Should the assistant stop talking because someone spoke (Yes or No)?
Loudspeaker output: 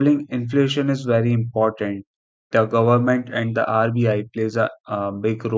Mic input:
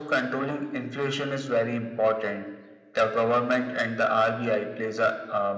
No